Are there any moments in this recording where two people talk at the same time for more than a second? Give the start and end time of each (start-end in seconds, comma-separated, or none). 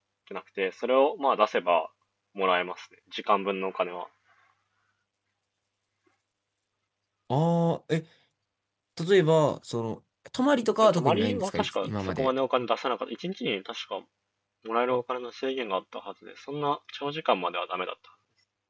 10.8-12.3